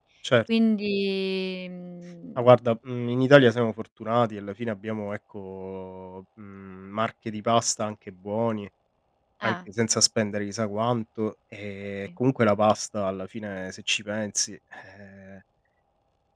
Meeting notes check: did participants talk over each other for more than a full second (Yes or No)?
No